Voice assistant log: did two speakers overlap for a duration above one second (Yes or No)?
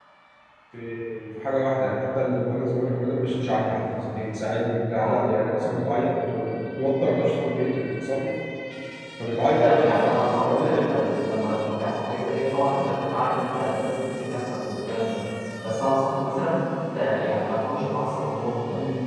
Yes